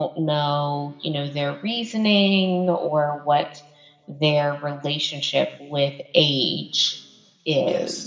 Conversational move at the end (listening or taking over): taking over